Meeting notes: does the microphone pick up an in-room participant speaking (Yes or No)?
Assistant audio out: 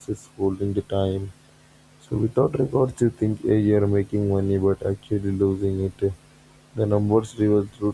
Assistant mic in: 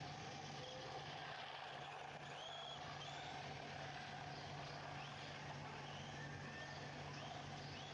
No